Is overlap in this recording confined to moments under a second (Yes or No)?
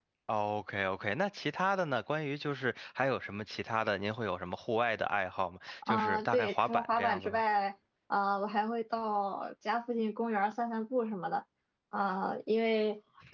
No